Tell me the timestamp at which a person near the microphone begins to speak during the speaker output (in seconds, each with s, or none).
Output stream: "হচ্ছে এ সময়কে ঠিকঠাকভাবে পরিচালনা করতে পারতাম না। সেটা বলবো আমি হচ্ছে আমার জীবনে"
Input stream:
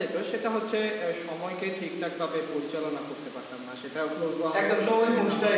4.6 s